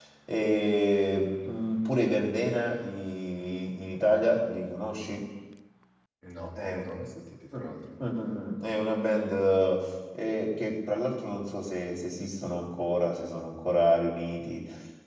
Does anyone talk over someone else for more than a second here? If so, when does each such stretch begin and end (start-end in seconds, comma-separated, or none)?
none